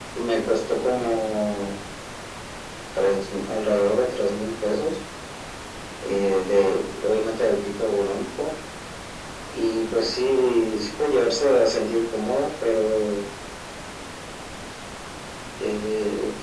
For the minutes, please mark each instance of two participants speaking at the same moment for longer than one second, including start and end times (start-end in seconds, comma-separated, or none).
none